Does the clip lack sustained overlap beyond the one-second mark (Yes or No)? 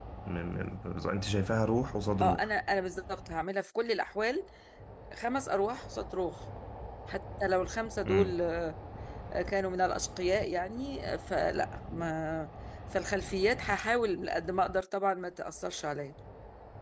Yes